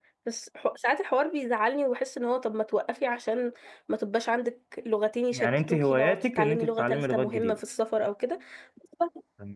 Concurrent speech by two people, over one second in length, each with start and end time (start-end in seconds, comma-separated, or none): 5.3-7.6